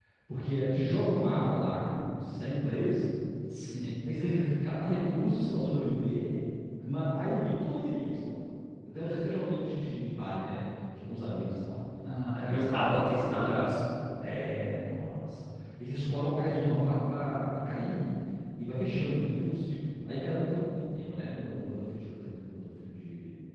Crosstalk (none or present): present